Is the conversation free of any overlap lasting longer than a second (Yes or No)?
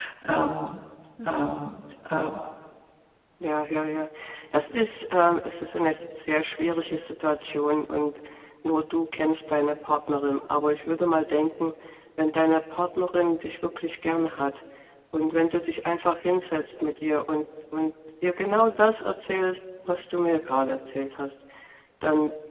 Yes